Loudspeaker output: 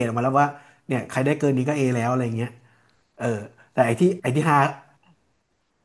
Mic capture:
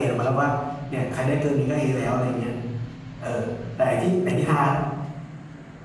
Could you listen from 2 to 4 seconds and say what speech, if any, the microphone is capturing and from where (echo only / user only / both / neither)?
echo only